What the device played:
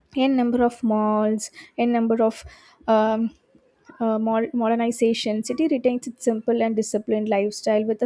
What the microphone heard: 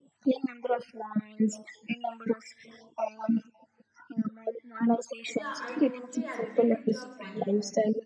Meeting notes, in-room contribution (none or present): present